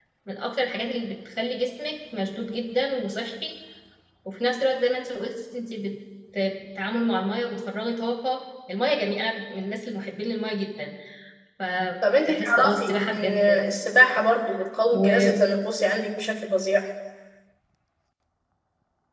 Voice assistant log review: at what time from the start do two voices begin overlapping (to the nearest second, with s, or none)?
12 s